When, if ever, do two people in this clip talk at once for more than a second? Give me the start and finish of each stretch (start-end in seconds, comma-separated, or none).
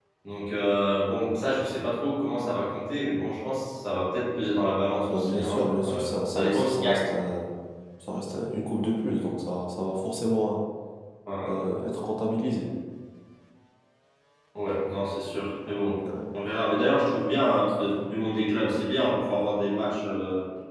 5.1-7.1